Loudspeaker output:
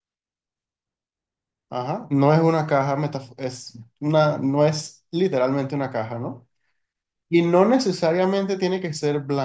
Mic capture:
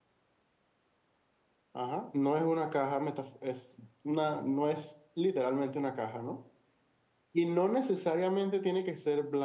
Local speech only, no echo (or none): none